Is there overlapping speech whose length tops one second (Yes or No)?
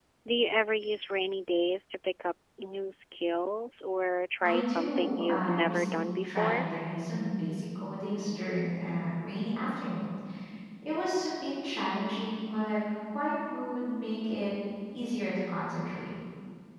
Yes